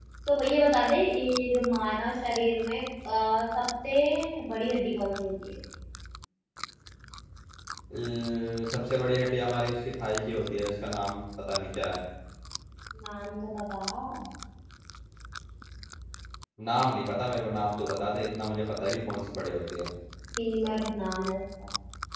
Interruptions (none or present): none